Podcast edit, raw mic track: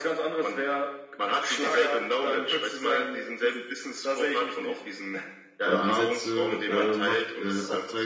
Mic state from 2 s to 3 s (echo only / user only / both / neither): echo only